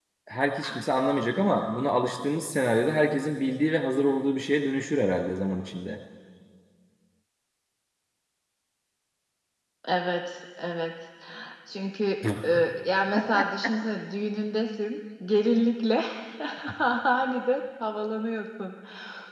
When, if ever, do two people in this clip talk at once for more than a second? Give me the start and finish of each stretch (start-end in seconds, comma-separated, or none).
none